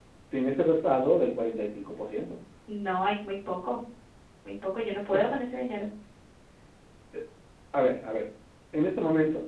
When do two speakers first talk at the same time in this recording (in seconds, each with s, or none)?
none